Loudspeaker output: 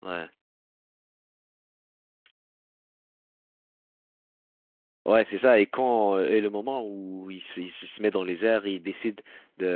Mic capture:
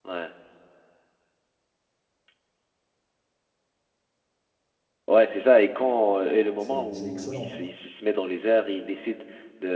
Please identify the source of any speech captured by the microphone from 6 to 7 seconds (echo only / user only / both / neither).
both